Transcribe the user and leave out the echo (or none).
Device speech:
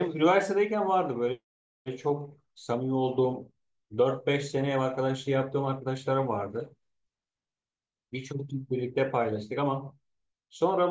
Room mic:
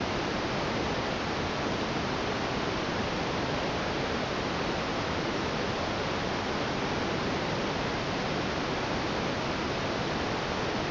none